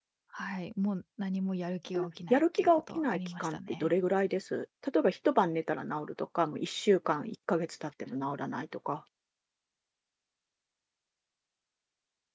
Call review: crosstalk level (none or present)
present